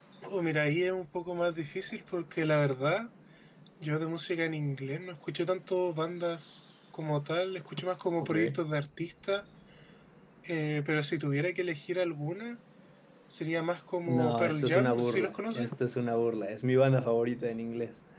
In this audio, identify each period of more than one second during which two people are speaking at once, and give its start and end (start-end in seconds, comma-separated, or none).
14.1-15.7